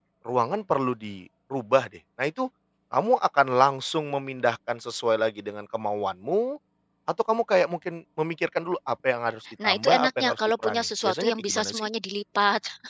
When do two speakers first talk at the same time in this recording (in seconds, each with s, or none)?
9.6 s